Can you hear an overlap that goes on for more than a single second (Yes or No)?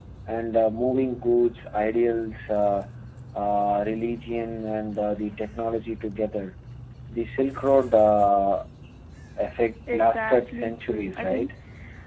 Yes